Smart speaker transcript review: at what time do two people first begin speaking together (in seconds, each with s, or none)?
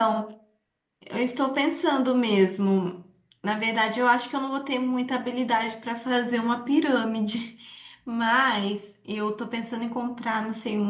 none